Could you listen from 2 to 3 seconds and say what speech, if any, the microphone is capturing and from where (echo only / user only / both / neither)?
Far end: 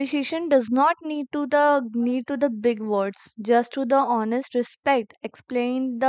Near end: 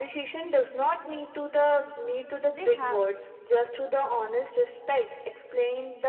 both